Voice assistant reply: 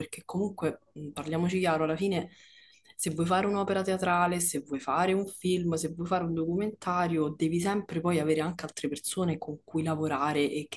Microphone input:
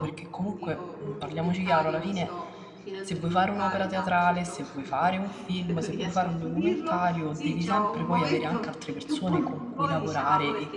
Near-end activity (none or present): present